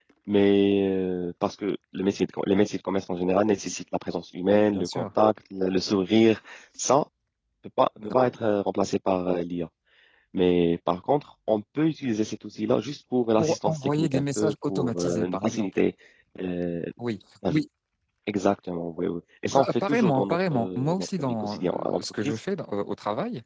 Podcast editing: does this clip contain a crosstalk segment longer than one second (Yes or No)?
Yes